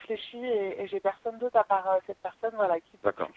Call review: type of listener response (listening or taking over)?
taking over